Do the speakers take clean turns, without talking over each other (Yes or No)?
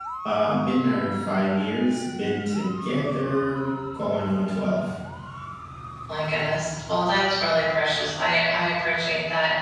Yes